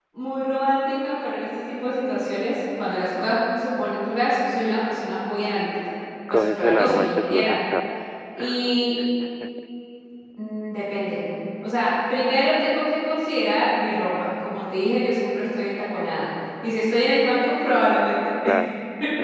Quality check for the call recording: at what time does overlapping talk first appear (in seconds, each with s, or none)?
6.3 s